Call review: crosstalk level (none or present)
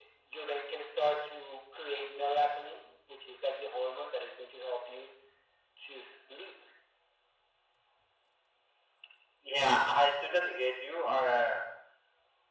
none